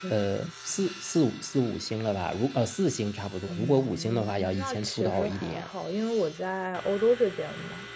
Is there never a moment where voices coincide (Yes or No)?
No